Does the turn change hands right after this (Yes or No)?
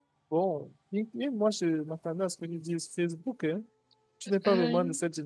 No